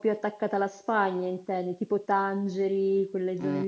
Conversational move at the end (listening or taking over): taking over